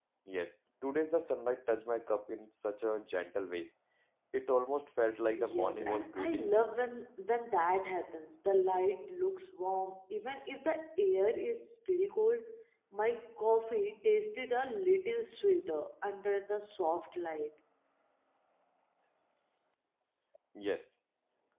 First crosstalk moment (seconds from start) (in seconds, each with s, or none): 5.4 s